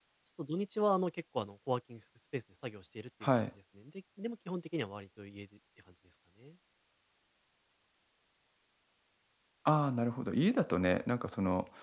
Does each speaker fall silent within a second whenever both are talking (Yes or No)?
Yes